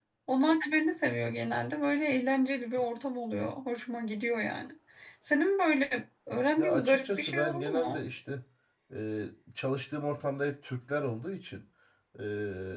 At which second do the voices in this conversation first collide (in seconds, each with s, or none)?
6.6 s